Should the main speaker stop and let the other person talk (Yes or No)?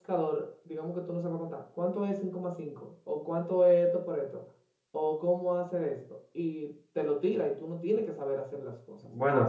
Yes